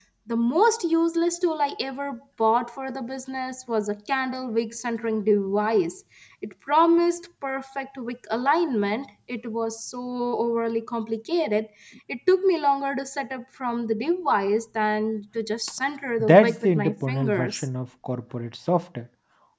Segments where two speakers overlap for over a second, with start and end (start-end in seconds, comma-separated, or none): 16.2-17.7